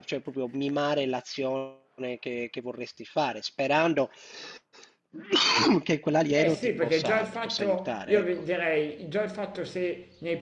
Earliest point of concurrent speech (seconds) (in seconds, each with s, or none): 6.4 s